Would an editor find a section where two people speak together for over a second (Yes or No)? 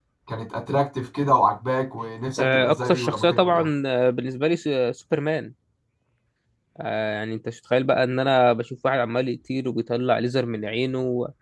Yes